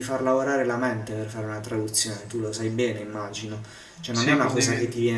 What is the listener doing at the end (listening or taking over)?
listening